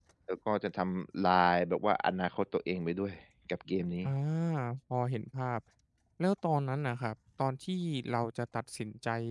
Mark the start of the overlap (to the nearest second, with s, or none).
none